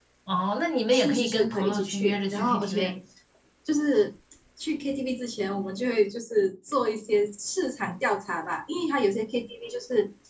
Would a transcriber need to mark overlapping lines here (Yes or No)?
Yes